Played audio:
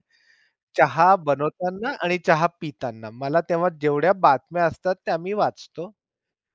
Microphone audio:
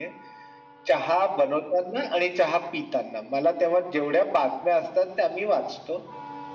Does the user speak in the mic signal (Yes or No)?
No